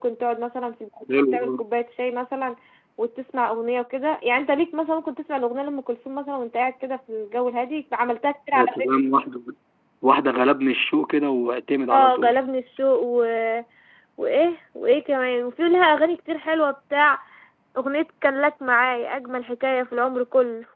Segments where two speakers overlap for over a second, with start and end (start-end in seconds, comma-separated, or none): none